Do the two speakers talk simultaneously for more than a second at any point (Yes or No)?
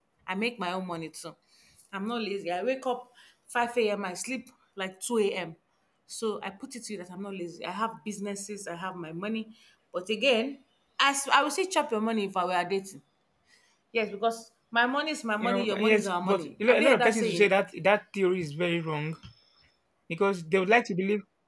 Yes